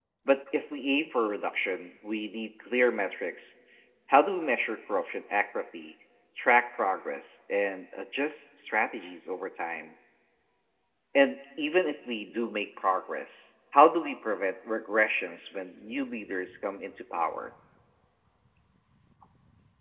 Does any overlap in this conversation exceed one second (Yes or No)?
No